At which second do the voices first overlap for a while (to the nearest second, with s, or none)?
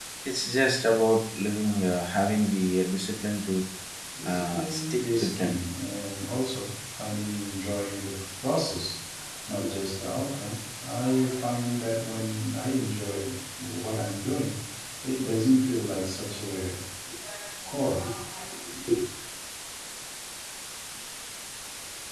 4 s